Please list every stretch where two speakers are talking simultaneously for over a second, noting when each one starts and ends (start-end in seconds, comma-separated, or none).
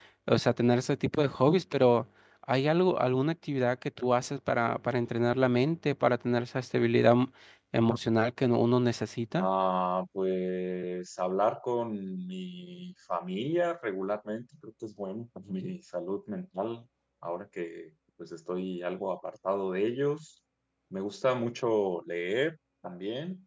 none